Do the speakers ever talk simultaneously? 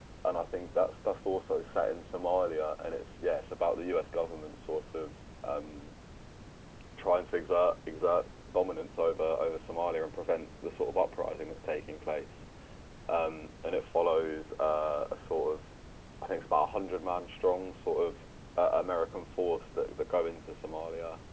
No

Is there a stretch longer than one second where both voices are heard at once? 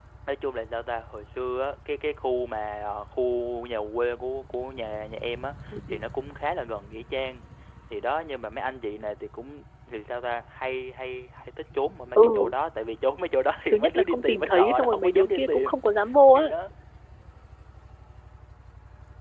Yes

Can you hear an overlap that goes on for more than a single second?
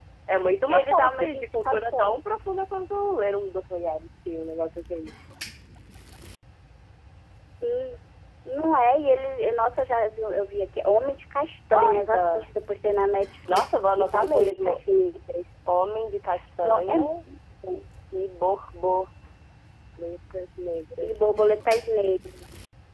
Yes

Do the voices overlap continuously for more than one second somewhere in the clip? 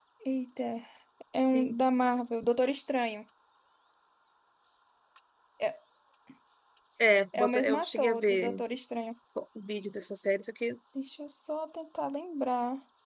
Yes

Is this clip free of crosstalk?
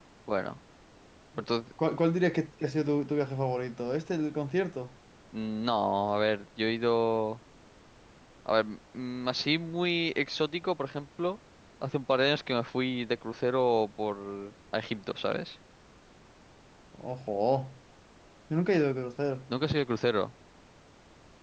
Yes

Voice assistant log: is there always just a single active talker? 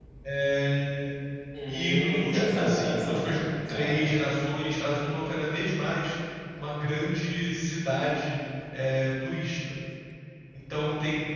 No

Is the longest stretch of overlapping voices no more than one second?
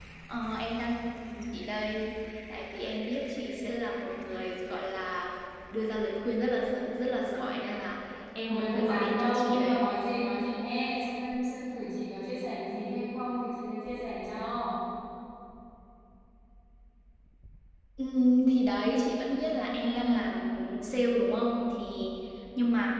No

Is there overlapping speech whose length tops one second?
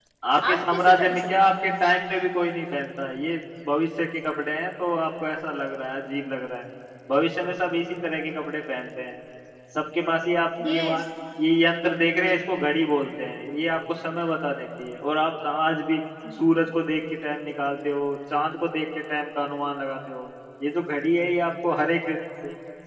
Yes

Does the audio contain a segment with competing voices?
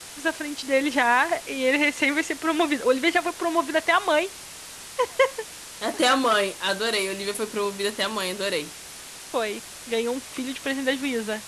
No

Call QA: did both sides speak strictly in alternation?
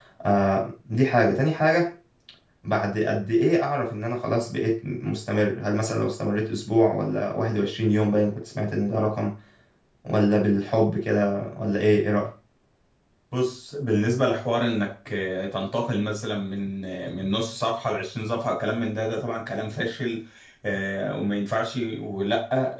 Yes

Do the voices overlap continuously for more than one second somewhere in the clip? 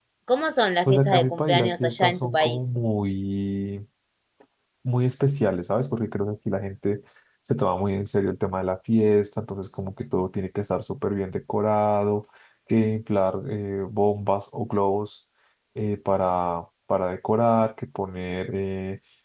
Yes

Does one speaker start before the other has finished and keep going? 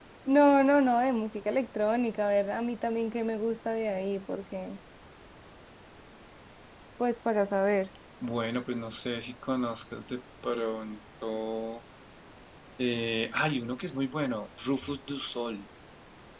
No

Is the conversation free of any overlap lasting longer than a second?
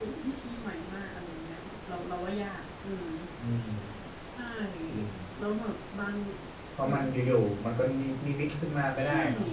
Yes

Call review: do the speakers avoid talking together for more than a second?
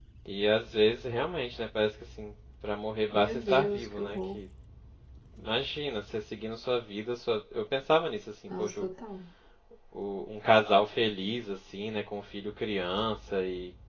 No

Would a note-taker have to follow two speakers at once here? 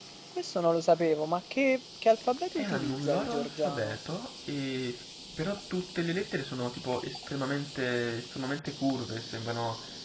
Yes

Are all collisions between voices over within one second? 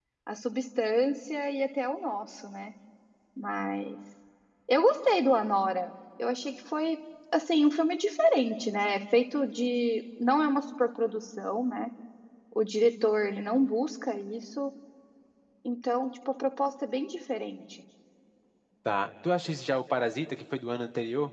Yes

